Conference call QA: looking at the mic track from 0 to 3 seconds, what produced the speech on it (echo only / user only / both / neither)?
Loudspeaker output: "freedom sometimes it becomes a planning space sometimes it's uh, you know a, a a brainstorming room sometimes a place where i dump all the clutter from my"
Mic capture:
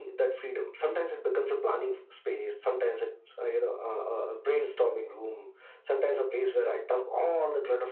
echo only